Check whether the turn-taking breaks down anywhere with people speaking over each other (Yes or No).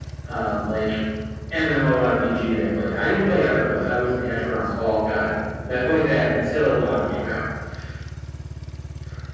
No